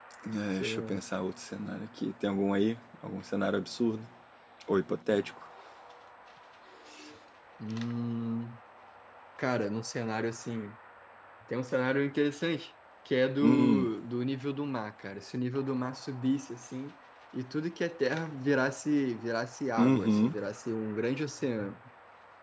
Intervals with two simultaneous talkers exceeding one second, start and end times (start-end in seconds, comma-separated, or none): none